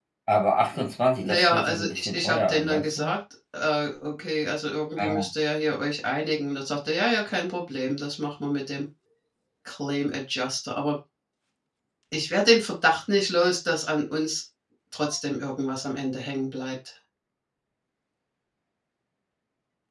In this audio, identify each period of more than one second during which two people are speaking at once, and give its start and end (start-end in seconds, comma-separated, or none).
1.2-3.1